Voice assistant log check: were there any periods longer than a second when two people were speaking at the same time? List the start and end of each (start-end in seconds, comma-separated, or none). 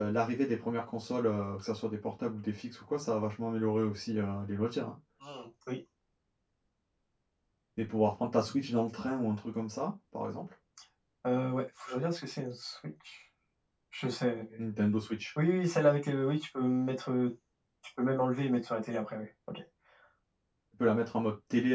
none